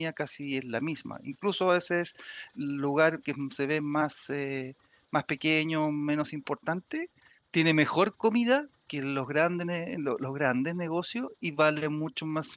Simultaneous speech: No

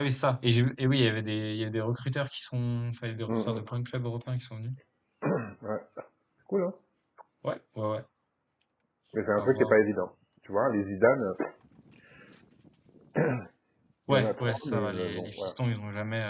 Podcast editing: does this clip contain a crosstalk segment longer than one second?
Yes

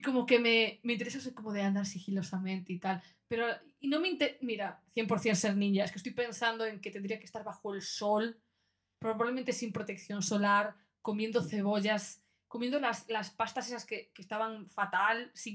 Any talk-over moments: No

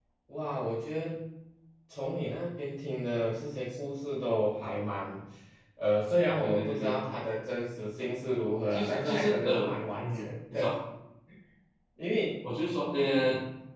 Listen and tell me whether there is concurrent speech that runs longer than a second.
Yes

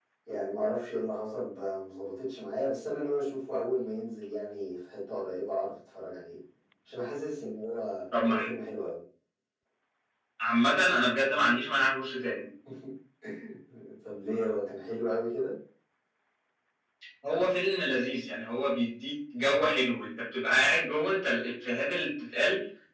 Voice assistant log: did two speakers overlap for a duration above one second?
No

